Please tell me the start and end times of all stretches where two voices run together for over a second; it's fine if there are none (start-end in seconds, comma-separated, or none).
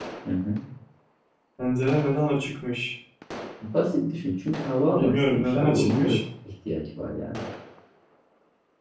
5.0-6.2